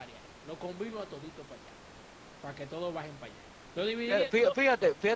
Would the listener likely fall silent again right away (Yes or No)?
No